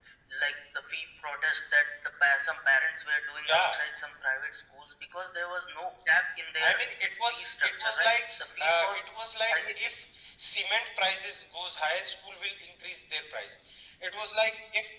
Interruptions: present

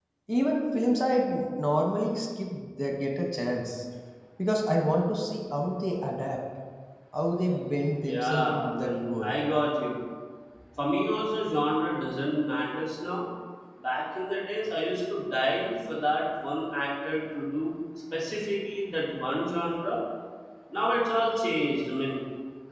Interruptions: present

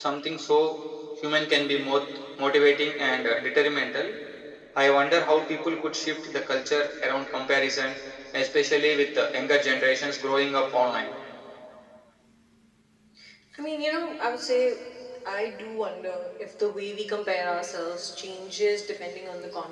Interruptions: none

